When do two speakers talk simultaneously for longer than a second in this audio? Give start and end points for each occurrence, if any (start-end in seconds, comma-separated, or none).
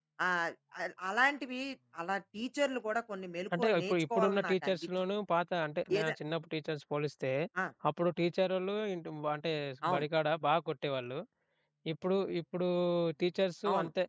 3.6-4.9